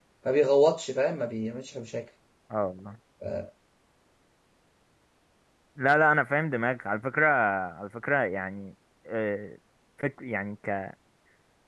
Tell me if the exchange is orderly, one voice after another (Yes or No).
Yes